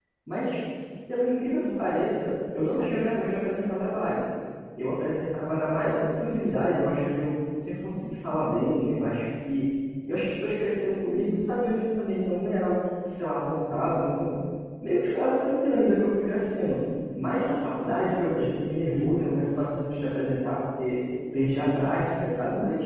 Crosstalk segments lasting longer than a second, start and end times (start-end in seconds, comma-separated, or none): 1.6-3.0